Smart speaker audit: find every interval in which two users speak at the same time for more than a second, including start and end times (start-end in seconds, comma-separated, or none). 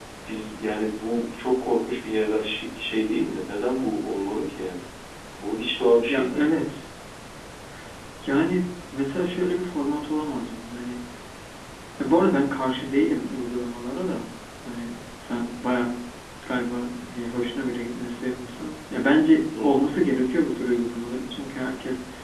none